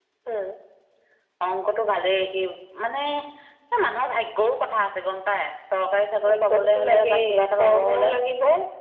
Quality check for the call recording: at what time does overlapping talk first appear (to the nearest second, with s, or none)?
6 s